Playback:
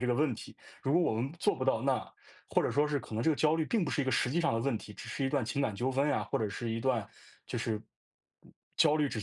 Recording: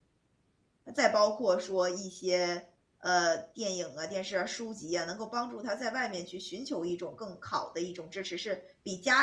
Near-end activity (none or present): present